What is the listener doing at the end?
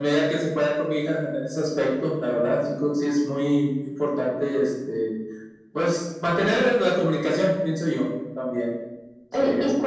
taking over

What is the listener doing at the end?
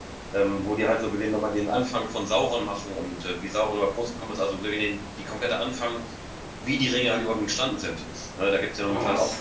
listening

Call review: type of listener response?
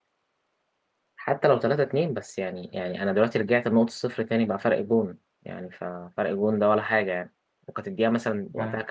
listening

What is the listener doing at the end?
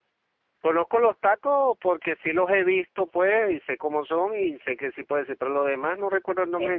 taking over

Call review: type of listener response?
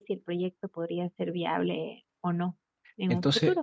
taking over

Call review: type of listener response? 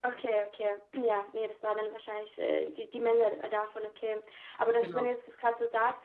listening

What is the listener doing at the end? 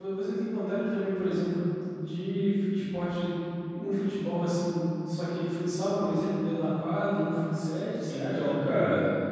taking over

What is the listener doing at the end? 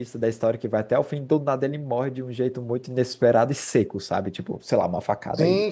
listening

